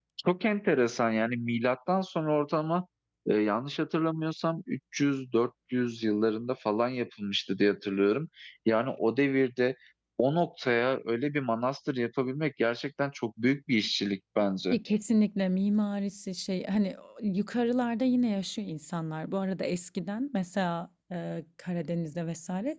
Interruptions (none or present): none